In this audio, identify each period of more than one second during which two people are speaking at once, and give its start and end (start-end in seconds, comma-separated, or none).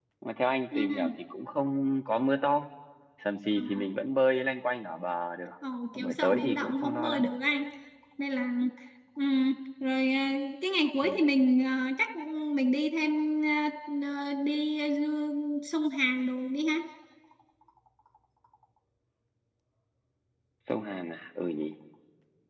6.0-7.3